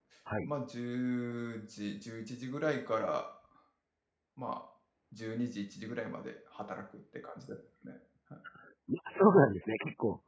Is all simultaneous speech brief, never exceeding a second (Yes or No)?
Yes